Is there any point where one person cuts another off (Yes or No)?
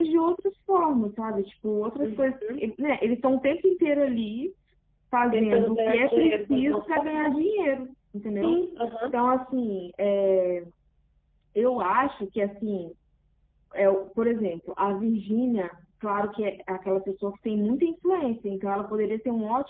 Yes